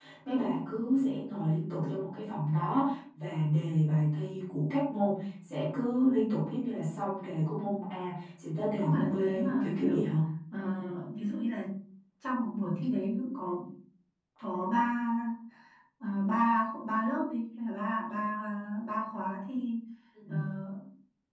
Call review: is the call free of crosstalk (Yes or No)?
No